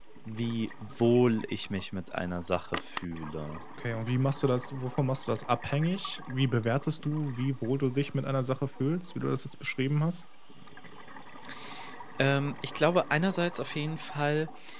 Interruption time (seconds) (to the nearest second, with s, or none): none